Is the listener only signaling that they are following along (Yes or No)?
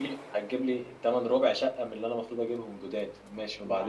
No